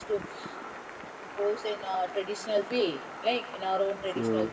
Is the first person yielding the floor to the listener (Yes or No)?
No